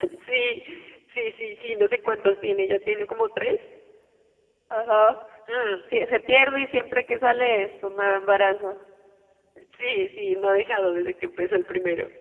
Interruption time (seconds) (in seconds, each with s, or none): none